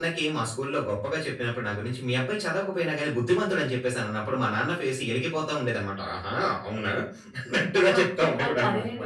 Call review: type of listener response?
taking over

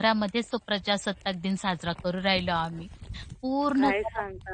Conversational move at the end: taking over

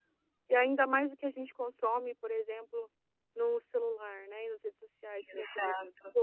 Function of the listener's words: listening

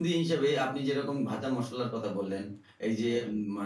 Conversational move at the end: listening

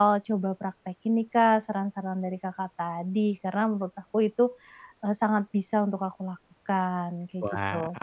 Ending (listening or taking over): taking over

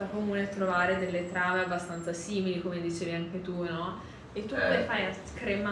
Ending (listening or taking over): listening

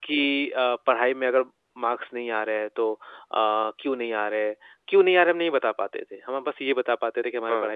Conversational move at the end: listening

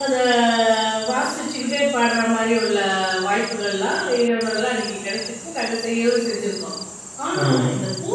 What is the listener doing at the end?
listening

